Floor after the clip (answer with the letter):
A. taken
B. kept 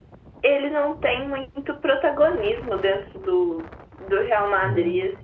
B